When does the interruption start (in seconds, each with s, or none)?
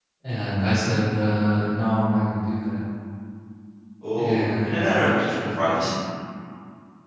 4.2 s